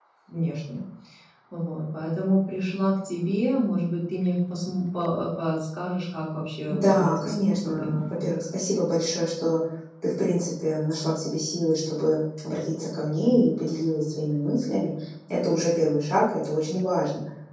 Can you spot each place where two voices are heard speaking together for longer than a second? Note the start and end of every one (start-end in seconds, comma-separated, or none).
6.7-8.1